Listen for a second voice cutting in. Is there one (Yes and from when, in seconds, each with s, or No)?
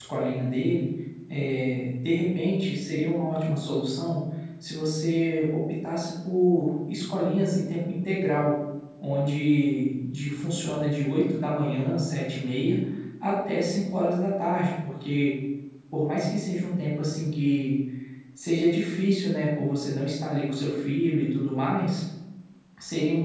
No